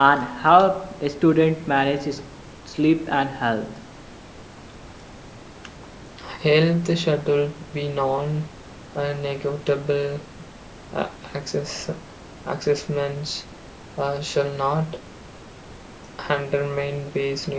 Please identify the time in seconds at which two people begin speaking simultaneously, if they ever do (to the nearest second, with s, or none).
none